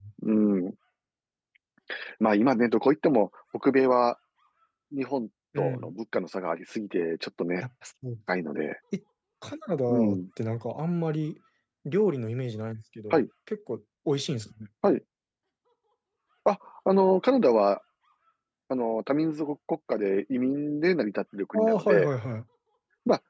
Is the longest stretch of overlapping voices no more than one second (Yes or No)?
Yes